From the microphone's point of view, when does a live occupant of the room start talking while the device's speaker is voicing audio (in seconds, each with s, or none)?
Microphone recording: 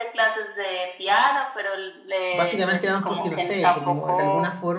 2.3 s